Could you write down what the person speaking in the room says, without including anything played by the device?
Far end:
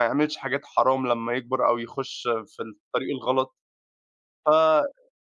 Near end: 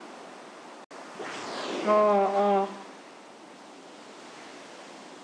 آه، آه.

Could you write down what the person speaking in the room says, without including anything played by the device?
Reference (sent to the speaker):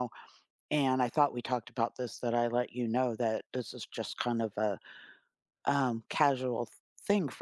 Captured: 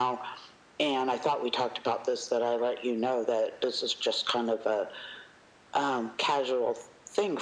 none

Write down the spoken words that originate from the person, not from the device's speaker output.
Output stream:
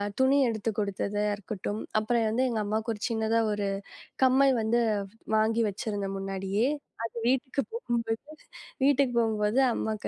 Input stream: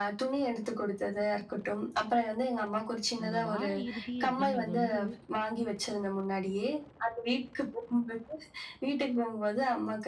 அந்த வார இறுதி அப்படிங்கிறது வந்து,

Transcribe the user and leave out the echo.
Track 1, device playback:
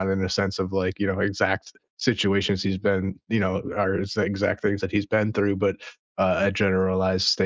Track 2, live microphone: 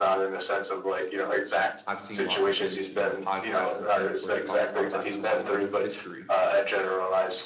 I've seen lots of his, you know, podcasts and things where he talks a lot about his life and his history.

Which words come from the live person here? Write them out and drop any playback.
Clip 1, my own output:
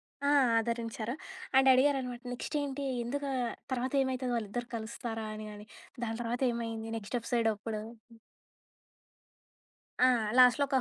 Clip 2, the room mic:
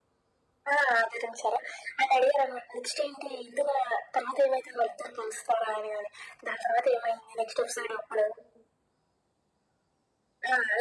none

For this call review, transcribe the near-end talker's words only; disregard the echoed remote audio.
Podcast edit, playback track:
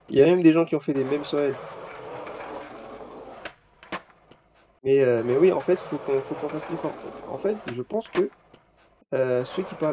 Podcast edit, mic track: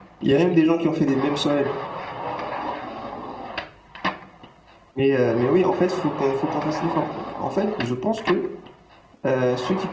none

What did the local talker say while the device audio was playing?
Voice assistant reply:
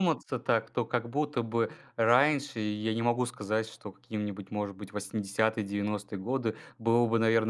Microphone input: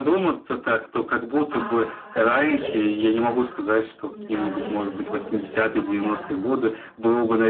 А скажи, у тебя есть какие-то, не знаю, методы, способы, чтобы как-то

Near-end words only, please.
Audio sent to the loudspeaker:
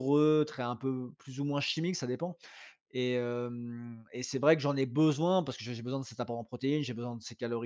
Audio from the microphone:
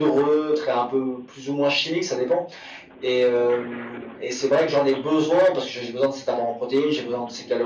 none

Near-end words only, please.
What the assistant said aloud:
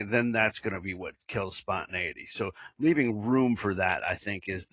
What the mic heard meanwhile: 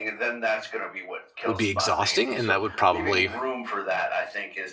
would be exhausting and that would probably

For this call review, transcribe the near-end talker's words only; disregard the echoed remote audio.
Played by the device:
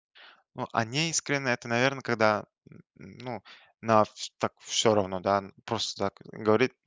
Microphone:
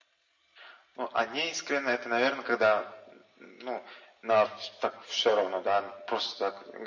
none

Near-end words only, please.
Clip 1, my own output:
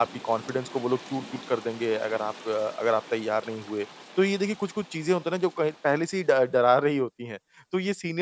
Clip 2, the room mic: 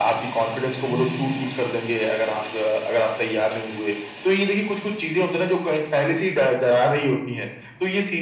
हुँ।

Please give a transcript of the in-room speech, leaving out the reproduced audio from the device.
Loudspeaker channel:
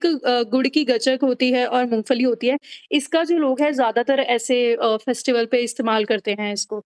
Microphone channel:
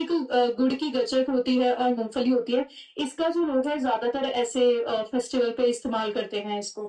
none

